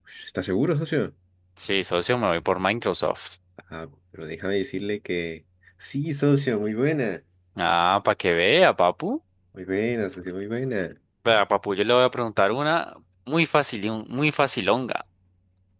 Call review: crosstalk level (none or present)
none